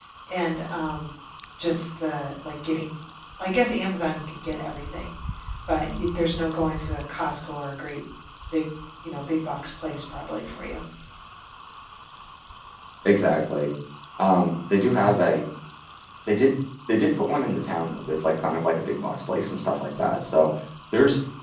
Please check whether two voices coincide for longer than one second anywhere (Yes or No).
No